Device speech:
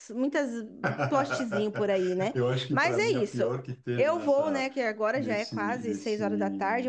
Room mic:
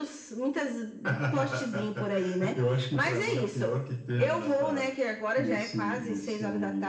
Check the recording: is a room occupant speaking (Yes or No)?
No